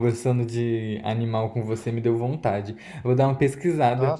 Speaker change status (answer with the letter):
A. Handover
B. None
B